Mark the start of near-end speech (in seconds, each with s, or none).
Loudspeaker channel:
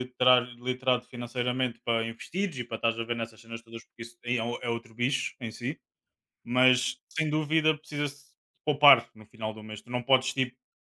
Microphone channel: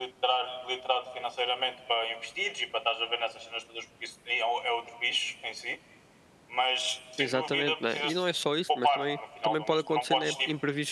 7.2 s